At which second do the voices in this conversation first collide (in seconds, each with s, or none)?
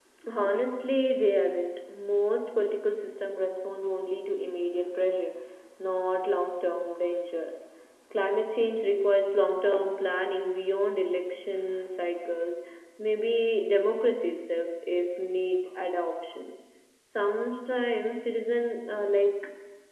none